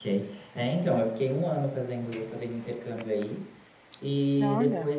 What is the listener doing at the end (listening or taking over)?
listening